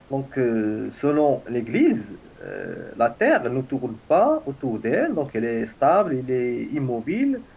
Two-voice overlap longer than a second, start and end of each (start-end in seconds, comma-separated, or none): none